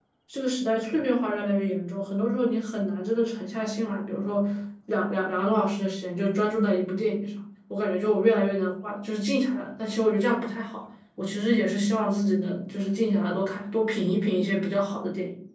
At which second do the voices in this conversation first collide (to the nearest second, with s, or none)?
none